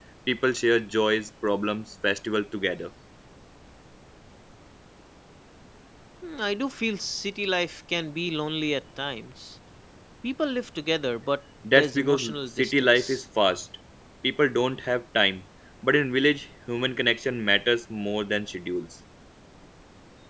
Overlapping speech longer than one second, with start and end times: 11.8-13.2

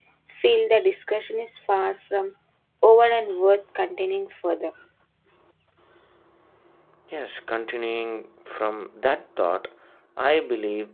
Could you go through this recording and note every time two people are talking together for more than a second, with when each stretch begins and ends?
none

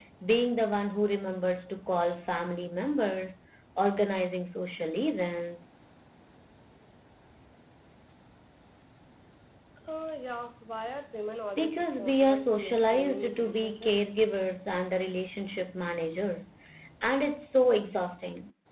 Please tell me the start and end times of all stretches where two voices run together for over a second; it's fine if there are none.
11.6-14.0

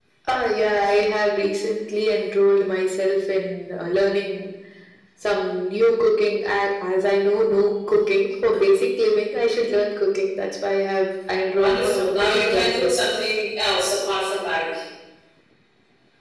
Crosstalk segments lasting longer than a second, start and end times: 11.6-13.0

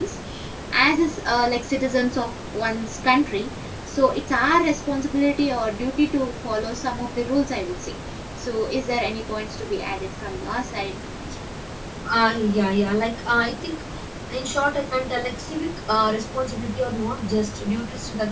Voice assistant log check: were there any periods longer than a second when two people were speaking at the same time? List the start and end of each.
none

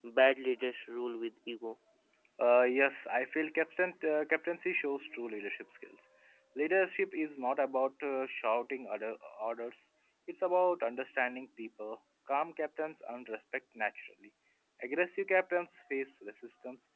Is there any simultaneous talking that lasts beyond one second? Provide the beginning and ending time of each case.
none

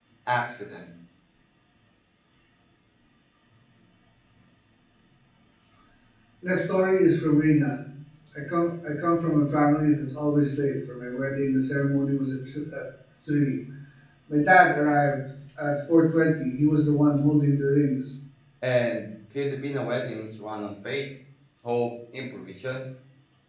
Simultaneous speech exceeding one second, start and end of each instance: none

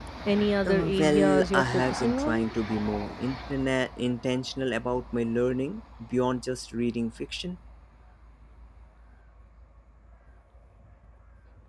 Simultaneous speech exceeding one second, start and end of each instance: 0.6-2.5

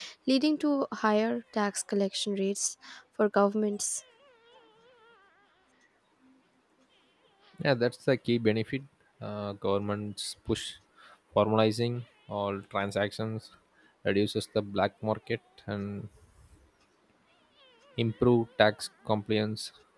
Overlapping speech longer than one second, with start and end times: none

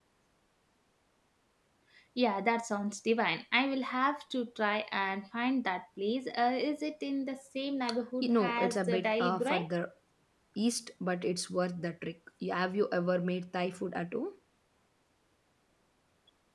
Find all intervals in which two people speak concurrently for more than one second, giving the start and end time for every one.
8.2-9.6

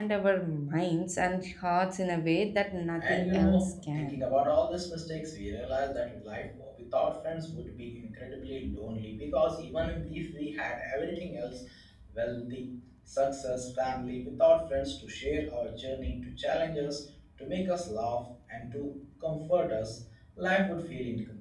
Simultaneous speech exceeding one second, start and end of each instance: 3.0-4.3

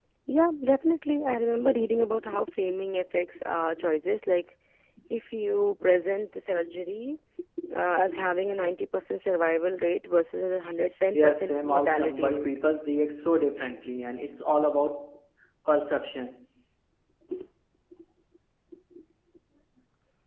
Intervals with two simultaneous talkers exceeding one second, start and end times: 11.1-12.5

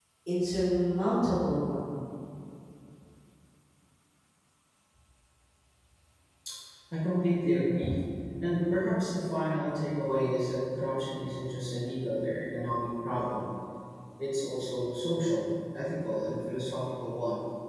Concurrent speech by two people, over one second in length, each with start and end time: none

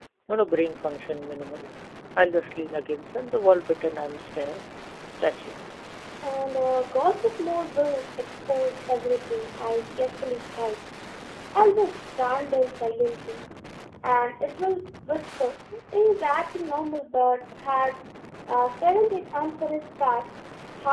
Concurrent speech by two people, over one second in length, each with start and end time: none

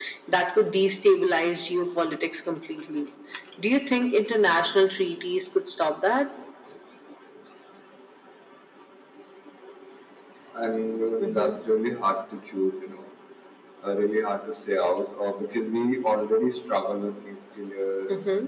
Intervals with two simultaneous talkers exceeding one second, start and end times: none

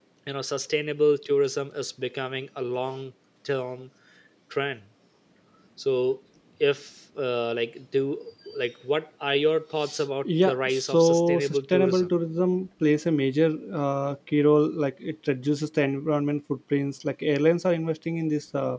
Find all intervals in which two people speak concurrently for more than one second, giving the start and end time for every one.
10.2-12.1

